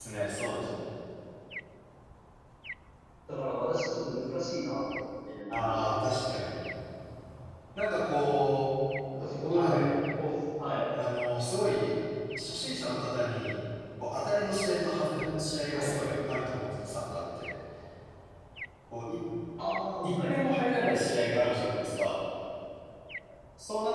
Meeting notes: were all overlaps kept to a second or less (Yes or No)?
Yes